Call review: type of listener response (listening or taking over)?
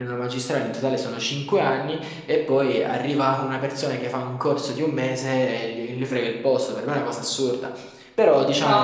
listening